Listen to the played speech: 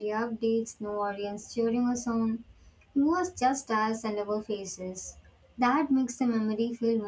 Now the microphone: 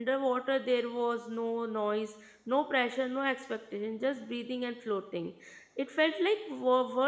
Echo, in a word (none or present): none